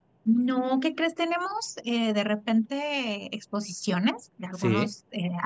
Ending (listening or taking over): listening